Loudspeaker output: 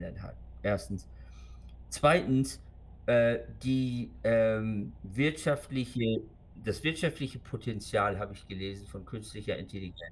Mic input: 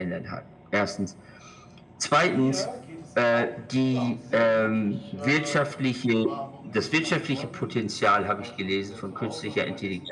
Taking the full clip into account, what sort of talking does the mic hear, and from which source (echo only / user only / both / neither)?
both